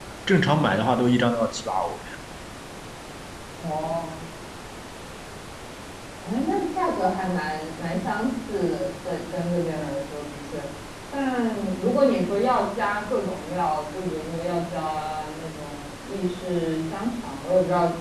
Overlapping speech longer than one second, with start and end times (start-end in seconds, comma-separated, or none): none